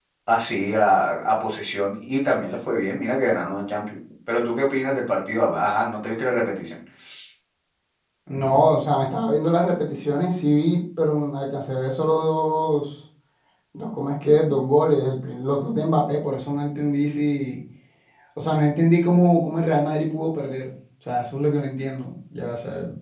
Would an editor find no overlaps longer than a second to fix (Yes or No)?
Yes